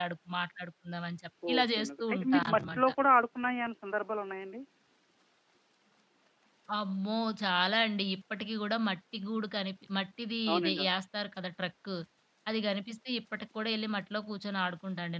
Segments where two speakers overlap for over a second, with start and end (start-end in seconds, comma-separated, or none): 1.5-2.9